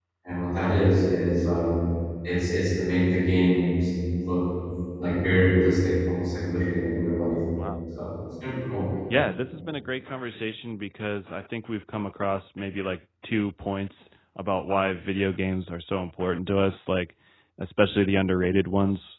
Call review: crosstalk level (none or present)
none